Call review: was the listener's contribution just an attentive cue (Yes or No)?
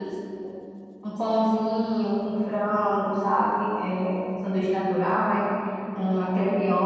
Yes